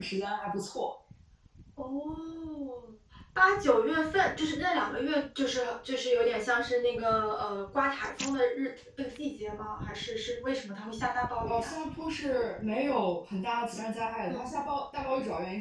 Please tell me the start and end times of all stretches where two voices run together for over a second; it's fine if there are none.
none

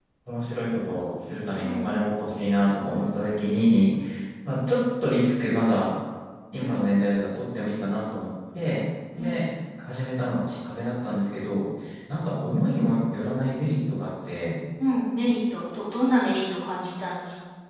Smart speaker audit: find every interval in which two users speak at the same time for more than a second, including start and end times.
none

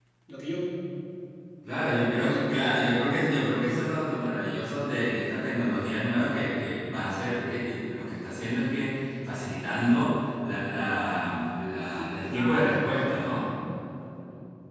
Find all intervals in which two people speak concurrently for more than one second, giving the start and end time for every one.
12.0-13.5

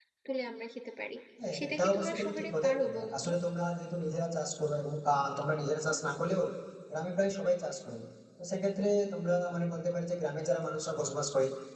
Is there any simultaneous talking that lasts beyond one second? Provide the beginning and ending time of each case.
1.6-3.3

